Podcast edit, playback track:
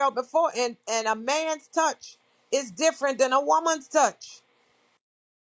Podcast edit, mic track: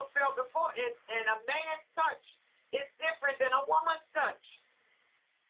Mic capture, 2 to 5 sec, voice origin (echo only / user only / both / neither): echo only